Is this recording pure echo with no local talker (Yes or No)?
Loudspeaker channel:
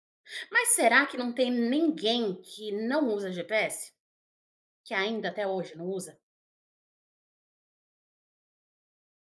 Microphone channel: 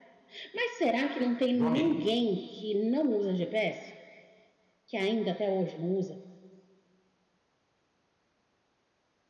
No